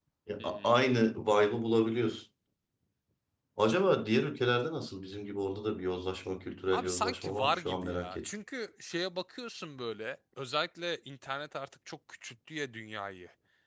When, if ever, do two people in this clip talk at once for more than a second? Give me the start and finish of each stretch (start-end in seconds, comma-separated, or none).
6.7-8.2